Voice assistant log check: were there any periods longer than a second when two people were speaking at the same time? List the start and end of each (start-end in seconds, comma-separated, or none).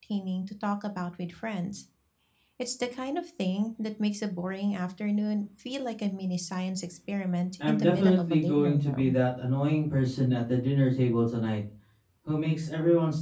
7.7-9.1